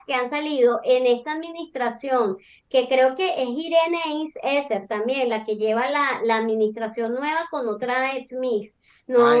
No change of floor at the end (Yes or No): No